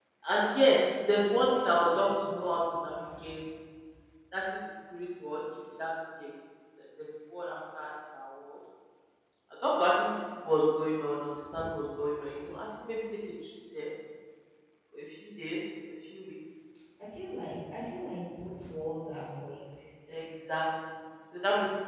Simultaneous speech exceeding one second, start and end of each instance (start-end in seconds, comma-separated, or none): 1.4-3.4